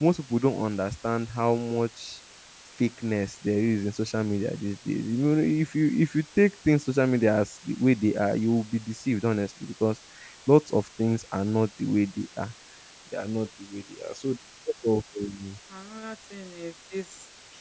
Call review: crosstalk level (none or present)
none